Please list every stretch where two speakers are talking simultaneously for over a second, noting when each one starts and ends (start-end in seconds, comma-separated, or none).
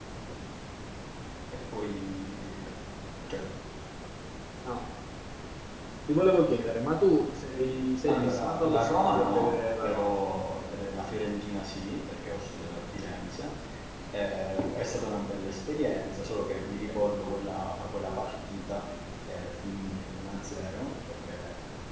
8.1-10.1